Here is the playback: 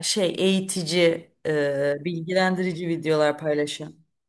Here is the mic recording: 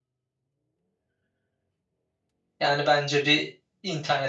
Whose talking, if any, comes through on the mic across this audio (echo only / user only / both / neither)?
user only